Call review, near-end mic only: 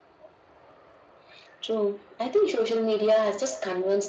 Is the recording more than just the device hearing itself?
No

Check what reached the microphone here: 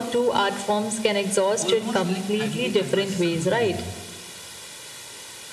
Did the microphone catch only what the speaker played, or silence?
No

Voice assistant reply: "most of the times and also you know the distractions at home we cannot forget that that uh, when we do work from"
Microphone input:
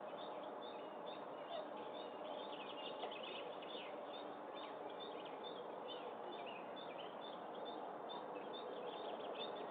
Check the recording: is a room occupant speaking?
No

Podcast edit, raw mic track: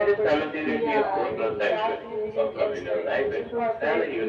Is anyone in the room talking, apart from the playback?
Yes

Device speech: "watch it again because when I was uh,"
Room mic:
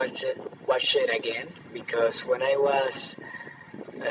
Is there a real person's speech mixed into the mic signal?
No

